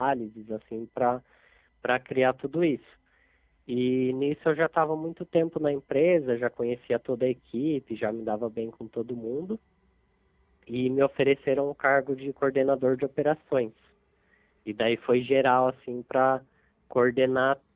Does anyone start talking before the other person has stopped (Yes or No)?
No